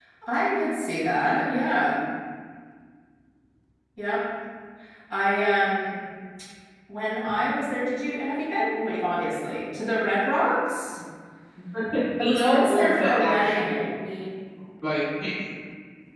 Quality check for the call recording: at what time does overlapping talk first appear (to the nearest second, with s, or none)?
12 s